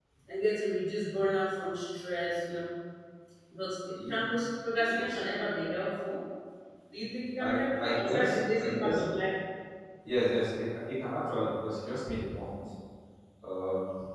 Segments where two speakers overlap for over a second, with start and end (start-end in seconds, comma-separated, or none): 7.4-9.0